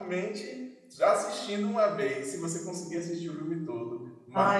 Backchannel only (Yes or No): Yes